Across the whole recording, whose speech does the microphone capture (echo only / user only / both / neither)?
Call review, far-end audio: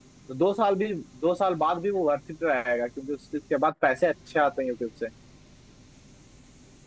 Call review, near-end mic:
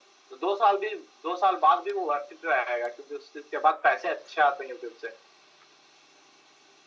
echo only